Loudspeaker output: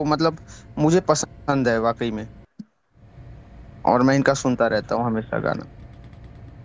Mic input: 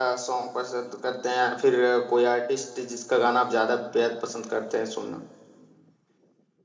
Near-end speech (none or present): present